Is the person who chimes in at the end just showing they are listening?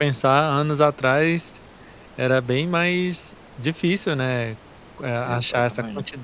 Yes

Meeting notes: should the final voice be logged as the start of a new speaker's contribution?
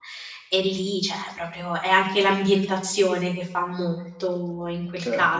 Yes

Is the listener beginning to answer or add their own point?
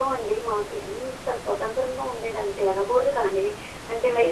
No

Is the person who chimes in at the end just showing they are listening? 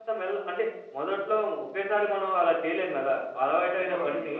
Yes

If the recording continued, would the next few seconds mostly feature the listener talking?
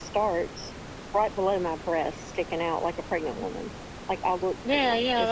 Yes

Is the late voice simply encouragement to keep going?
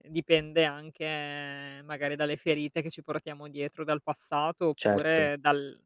Yes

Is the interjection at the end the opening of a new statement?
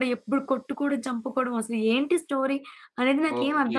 Yes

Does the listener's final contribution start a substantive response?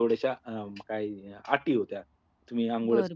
Yes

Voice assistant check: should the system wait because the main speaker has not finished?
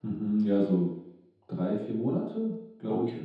No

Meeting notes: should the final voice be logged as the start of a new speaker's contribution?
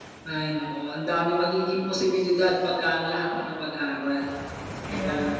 Yes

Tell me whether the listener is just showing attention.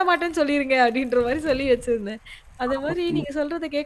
Yes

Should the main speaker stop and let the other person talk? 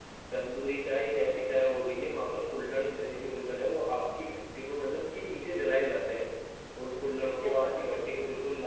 No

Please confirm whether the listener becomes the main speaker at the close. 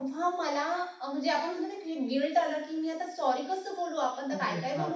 Yes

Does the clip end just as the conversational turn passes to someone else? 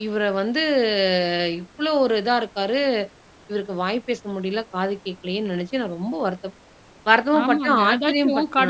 Yes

